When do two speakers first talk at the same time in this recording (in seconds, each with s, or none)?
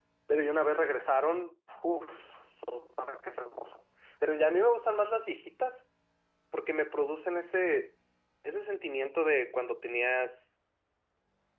none